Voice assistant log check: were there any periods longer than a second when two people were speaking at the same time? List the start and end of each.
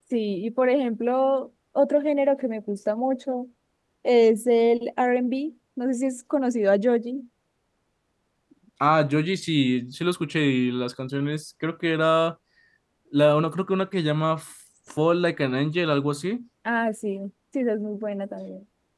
none

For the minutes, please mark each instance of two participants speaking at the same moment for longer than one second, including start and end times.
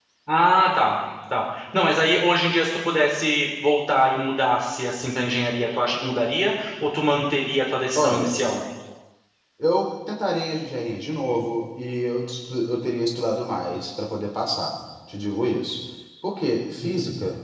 none

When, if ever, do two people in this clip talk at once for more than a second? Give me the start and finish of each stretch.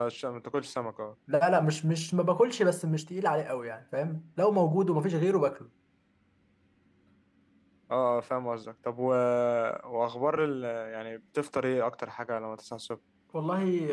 none

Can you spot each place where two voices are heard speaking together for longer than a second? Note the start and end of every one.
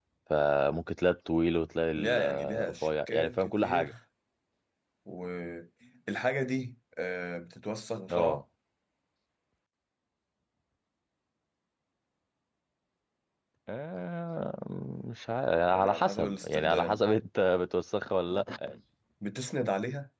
1.9-3.9, 15.7-17.0

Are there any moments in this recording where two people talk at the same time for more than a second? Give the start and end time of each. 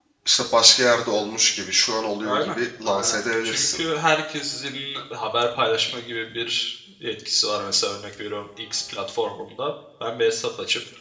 2.2-3.8

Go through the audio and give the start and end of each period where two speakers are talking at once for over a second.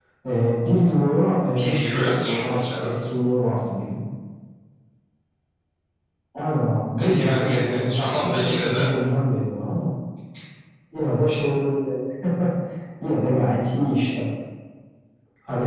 1.6-2.9, 7.0-8.9

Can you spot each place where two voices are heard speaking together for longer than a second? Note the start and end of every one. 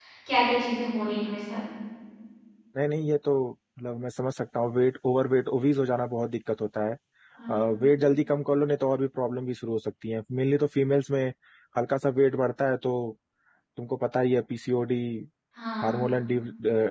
none

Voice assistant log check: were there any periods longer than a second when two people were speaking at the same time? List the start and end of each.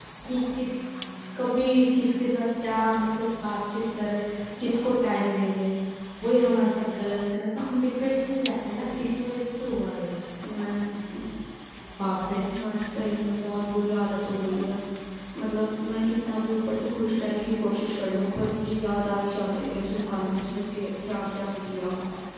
none

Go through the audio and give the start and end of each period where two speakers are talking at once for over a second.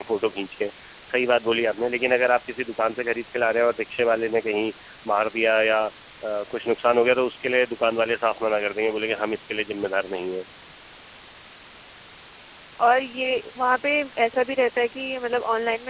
none

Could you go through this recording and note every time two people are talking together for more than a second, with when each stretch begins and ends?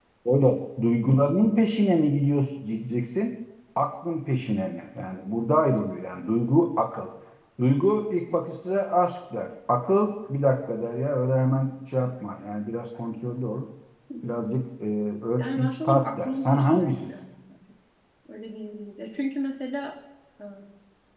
15.4-17.2

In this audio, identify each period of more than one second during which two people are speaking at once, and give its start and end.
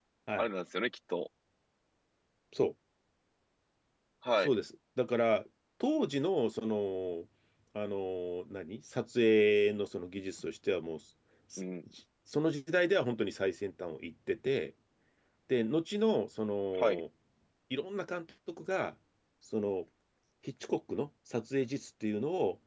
none

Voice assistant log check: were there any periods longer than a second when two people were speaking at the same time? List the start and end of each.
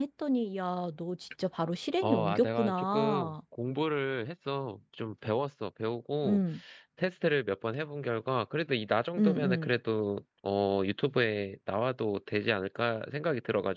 2.0-3.3

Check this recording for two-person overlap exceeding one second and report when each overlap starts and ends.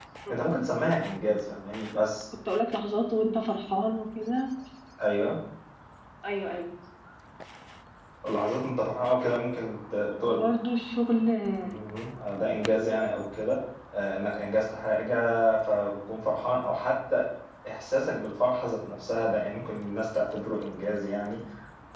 none

